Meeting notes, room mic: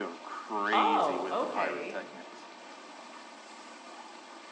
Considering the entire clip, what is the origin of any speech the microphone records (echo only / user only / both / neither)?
both